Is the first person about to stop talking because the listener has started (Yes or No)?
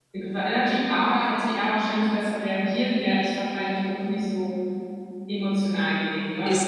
Yes